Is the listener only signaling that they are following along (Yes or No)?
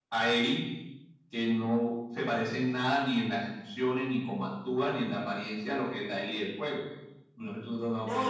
No